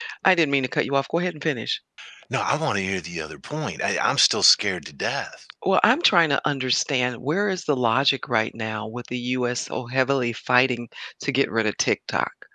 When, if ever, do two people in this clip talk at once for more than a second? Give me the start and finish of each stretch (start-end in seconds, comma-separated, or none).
none